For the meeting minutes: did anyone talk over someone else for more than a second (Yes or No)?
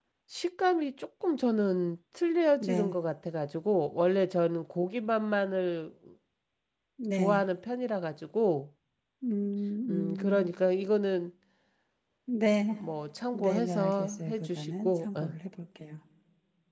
Yes